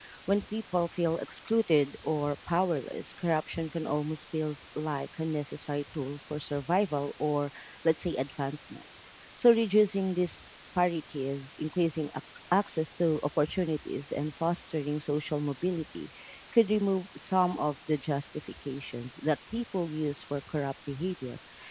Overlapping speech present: No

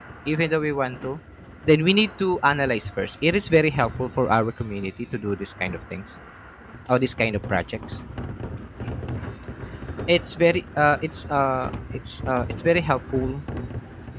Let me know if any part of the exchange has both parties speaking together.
No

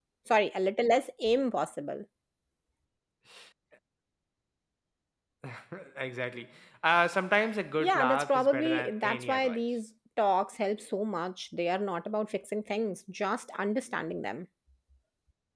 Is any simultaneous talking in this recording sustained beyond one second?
Yes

